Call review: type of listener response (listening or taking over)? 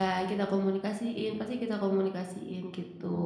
taking over